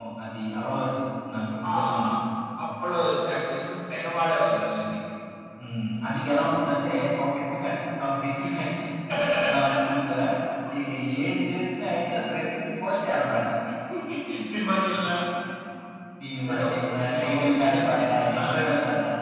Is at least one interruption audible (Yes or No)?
Yes